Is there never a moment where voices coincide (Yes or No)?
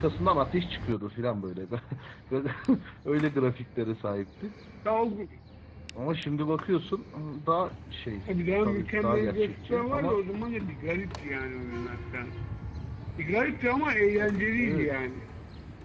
No